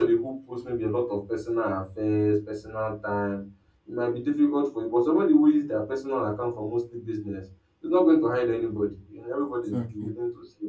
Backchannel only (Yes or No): Yes